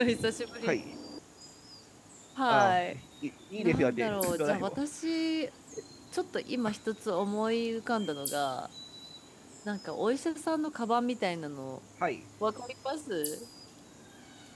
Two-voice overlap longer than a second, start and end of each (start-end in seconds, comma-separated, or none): 3.6-4.8